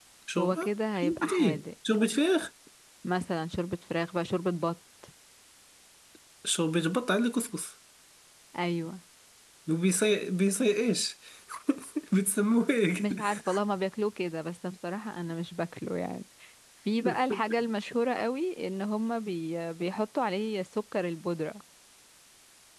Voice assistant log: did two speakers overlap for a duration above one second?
Yes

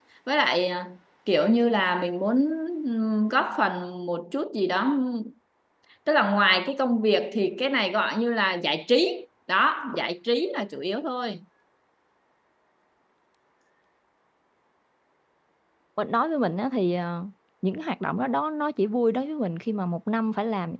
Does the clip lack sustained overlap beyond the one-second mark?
Yes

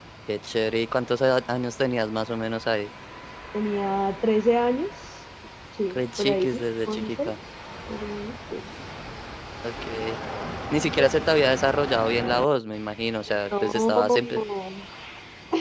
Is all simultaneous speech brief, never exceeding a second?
No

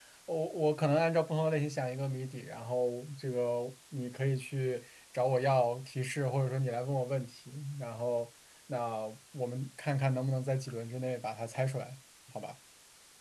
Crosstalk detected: No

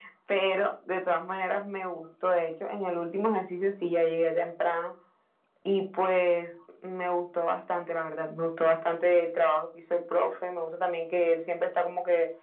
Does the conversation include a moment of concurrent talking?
No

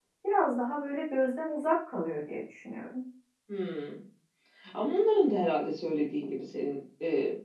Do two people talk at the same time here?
No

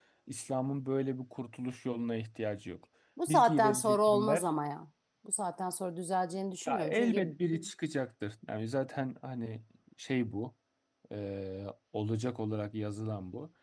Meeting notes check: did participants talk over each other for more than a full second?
Yes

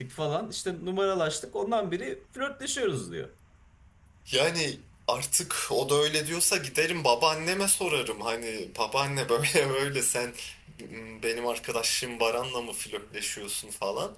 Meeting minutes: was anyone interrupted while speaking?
No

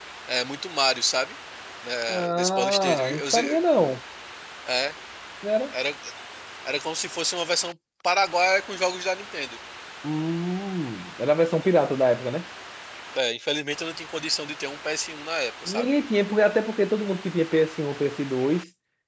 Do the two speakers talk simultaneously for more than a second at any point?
Yes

